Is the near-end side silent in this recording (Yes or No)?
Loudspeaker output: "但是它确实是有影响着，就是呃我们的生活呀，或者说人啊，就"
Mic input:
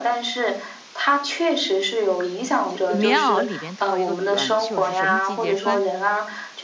No